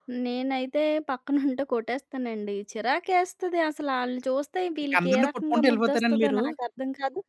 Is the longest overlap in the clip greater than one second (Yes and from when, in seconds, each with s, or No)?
Yes, from 4.9 s